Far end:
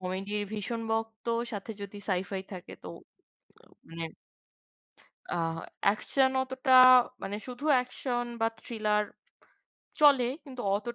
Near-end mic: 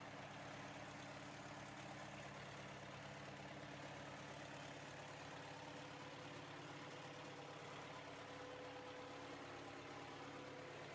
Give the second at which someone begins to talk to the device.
none

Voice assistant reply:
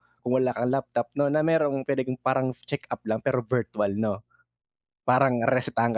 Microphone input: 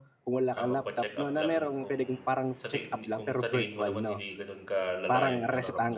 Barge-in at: 0.5 s

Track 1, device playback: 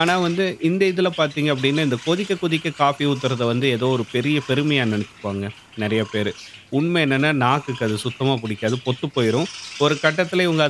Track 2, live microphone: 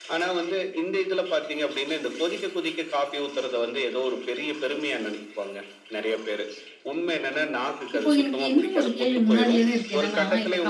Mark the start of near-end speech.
8.0 s

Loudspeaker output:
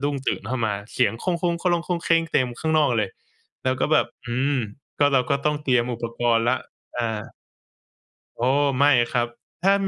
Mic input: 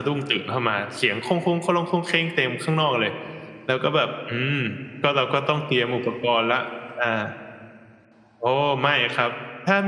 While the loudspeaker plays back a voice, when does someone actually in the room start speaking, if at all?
none

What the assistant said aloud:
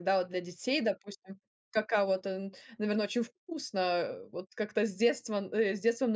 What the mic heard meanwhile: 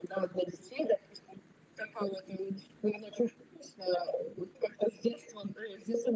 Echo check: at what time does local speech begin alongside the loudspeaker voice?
none

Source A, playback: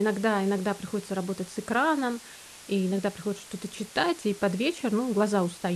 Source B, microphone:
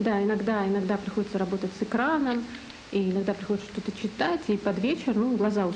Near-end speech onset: none

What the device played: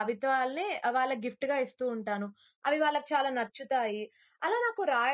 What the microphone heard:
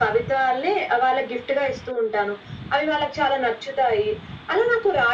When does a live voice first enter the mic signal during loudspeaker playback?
none

